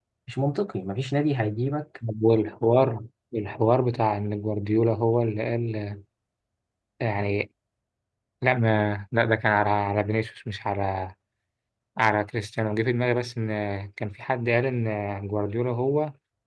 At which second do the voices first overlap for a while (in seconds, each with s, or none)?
none